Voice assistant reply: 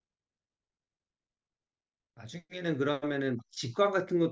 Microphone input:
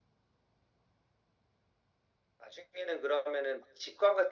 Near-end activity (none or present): none